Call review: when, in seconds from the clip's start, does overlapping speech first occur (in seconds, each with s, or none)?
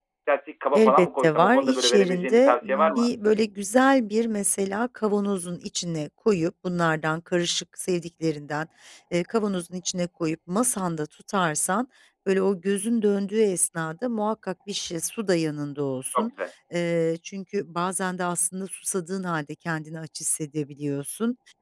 0.7 s